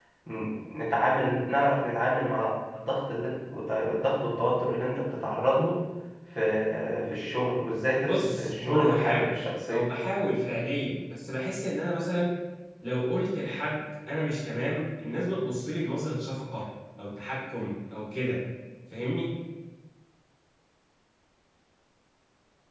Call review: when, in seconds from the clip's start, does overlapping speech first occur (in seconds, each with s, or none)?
8.0 s